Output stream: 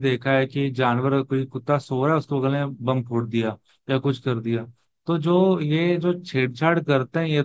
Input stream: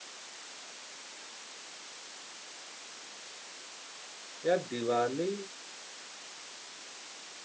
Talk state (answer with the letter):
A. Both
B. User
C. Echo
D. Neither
B